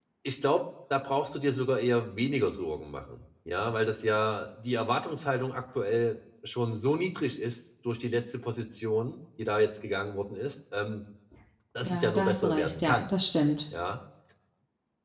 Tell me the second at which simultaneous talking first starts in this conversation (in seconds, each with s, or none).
11.8 s